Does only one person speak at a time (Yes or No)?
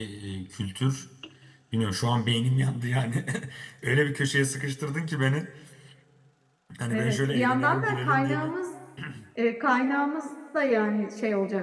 No